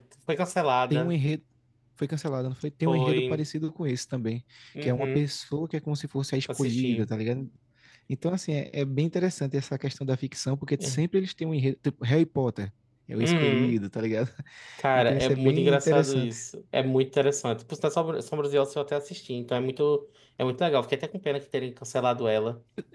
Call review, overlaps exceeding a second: present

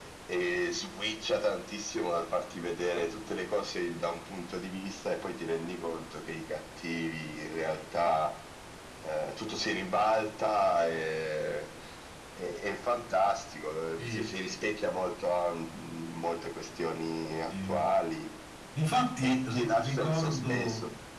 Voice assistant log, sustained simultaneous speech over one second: present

